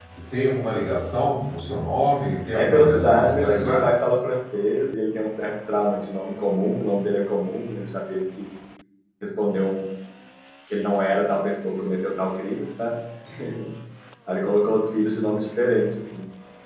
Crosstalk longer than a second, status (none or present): present